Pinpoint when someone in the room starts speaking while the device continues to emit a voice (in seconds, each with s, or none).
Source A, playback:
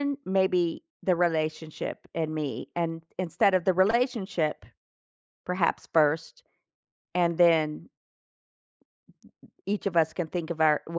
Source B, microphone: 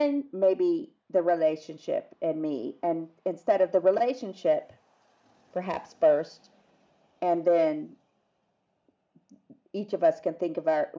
none